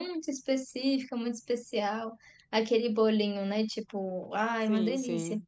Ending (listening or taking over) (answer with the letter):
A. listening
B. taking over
A